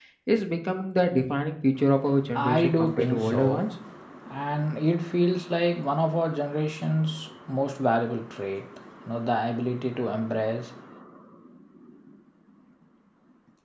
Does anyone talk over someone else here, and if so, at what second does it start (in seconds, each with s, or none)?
2.4 s